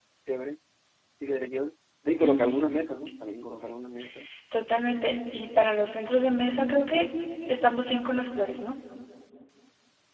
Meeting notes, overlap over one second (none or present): none